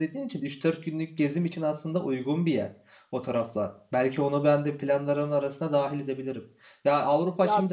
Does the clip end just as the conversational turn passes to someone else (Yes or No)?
No